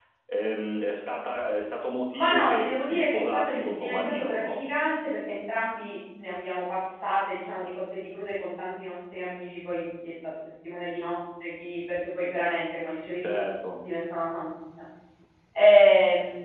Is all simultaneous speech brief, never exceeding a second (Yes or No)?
No